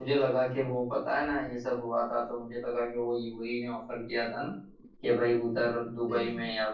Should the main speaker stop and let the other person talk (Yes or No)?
No